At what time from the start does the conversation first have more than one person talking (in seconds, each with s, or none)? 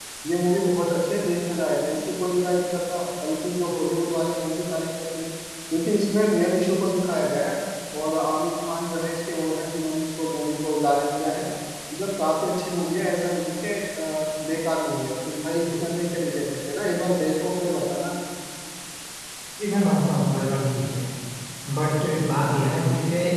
none